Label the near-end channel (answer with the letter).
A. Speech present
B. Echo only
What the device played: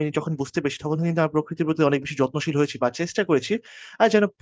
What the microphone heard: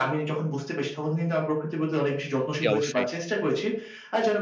A